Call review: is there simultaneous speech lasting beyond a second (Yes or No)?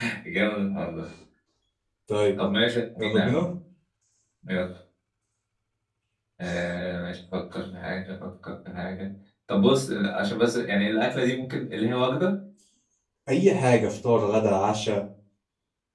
No